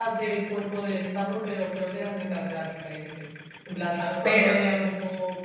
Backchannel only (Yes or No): Yes